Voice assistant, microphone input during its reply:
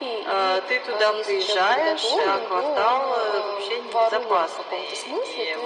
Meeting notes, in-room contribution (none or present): none